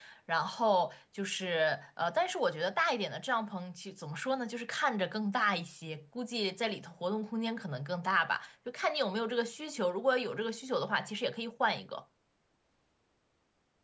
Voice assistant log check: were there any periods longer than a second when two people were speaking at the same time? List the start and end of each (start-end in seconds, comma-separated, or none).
none